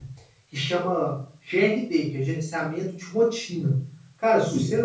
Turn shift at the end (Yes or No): No